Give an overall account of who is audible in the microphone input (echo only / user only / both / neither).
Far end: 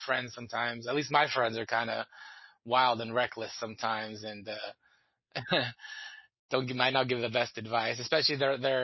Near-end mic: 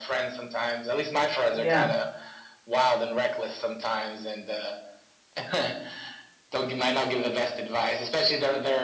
both